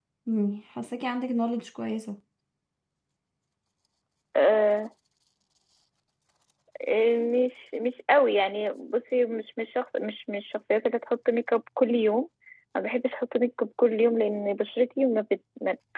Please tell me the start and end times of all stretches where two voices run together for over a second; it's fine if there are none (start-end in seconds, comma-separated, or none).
none